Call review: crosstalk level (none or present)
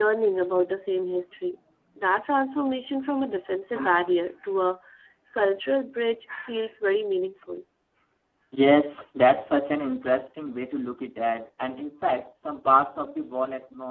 none